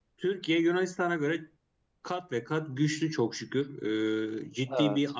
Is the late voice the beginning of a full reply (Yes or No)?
No